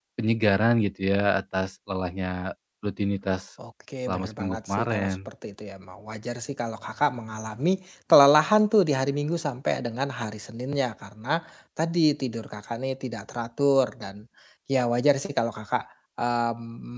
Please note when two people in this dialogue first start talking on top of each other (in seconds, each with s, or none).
4.1 s